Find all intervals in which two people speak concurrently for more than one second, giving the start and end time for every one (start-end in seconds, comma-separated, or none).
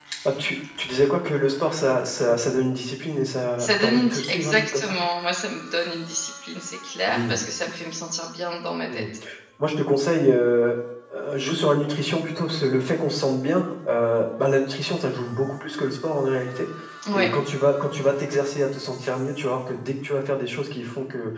3.6-4.9